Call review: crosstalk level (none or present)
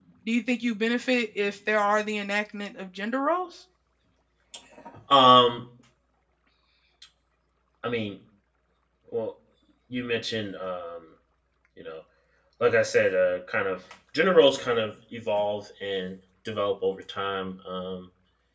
none